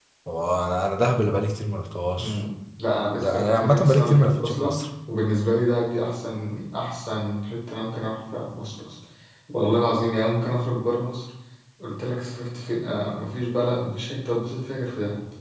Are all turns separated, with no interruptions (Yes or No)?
No